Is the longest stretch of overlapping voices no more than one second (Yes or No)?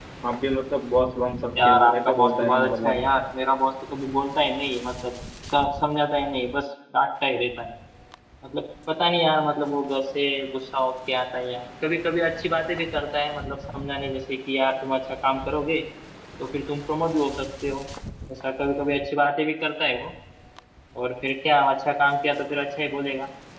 No